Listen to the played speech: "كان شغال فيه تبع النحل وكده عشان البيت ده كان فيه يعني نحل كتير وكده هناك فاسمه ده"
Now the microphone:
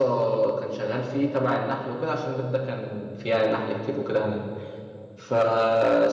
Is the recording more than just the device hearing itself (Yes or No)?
No